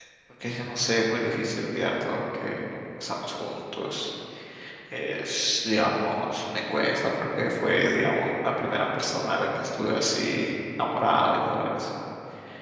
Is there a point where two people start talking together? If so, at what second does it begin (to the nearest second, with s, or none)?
none